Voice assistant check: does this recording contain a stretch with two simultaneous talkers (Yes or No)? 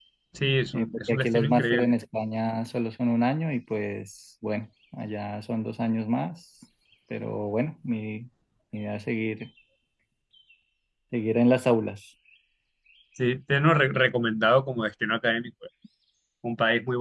Yes